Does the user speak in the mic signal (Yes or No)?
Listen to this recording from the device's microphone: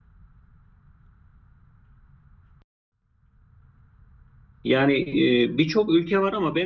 Yes